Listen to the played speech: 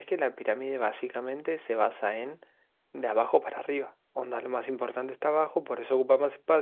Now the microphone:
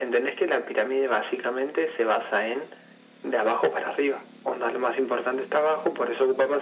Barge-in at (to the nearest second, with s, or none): none